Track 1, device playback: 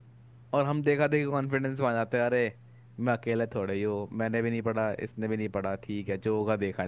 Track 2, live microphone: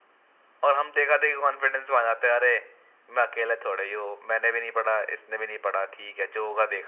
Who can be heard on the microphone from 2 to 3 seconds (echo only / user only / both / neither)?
echo only